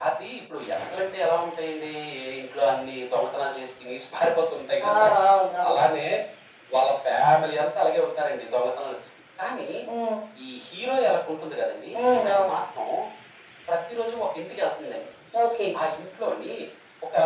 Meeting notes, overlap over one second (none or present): none